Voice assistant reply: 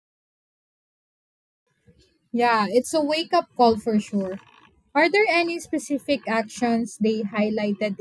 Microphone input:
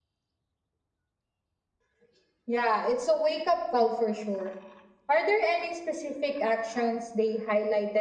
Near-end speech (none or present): none